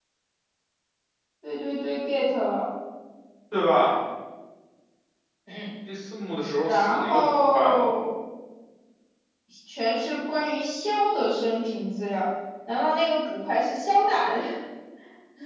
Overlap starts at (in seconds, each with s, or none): 6.7 s